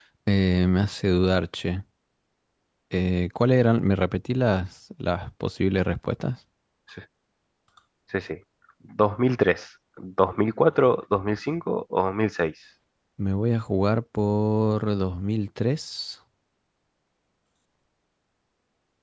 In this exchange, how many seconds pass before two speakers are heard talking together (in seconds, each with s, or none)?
none